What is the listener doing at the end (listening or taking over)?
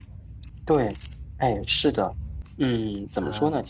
listening